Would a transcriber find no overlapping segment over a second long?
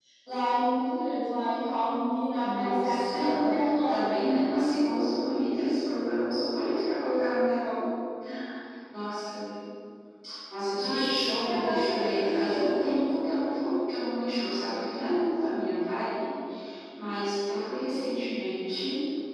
No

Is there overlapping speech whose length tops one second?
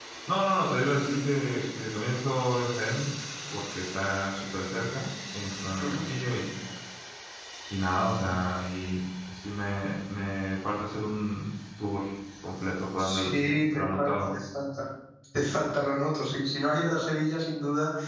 Yes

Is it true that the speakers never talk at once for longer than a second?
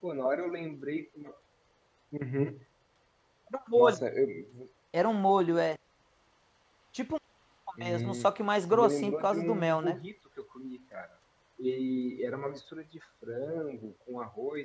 No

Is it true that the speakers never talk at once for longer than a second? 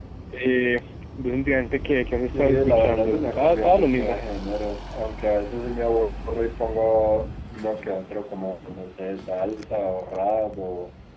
No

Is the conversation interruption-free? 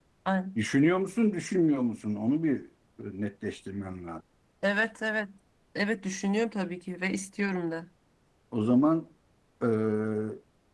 Yes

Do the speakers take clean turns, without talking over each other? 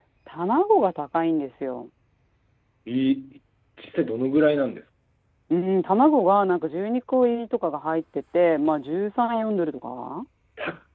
Yes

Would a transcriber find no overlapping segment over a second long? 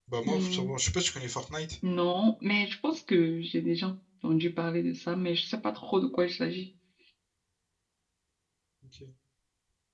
Yes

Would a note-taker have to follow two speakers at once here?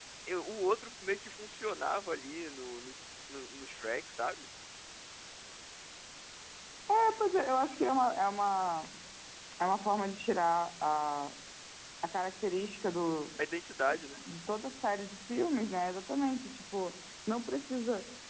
No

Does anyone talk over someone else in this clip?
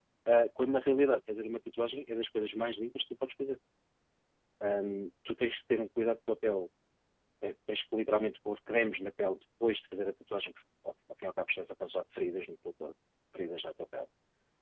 No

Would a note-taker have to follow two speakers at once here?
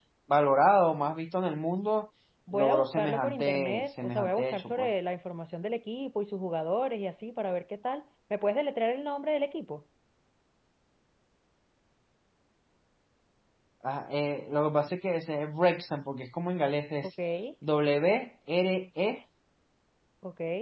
Yes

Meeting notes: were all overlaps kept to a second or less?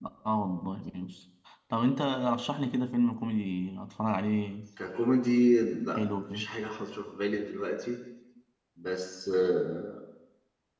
Yes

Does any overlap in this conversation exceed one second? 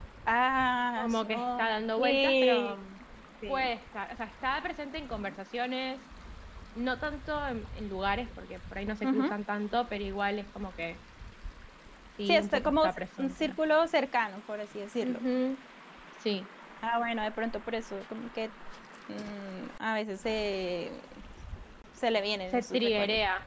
Yes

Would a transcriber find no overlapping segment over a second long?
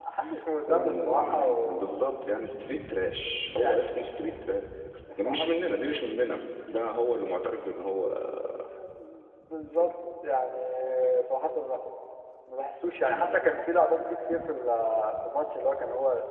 No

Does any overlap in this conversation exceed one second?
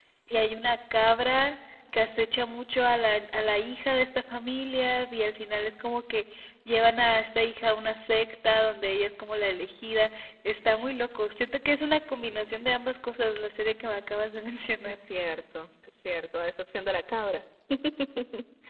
No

